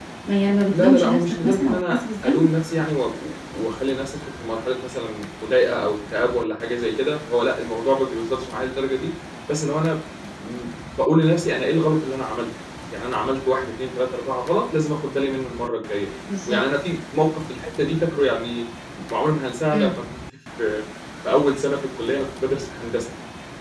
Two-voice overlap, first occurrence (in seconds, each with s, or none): 0.6 s